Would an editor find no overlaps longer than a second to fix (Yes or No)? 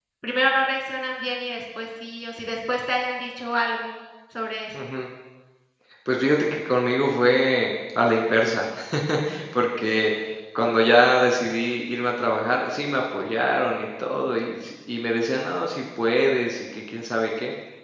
Yes